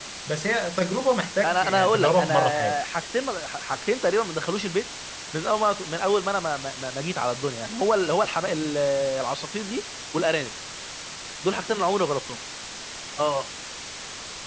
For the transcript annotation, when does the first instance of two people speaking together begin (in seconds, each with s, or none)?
1.4 s